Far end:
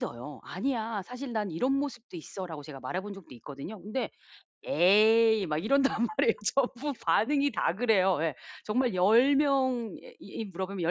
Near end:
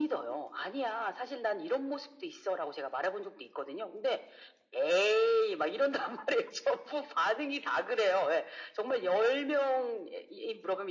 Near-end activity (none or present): none